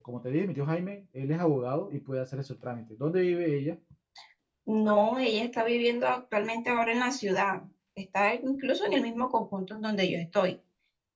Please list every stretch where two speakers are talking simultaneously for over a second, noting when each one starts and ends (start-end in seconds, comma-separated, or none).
none